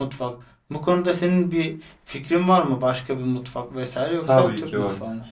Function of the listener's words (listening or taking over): taking over